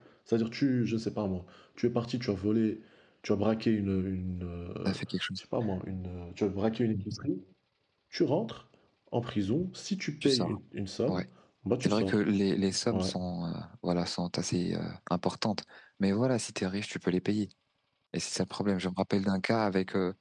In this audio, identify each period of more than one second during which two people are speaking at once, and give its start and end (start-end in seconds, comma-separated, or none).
none